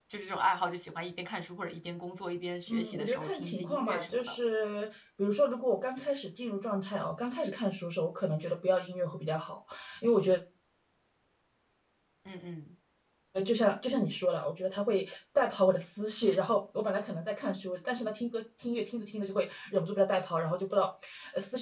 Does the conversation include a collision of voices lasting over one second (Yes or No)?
Yes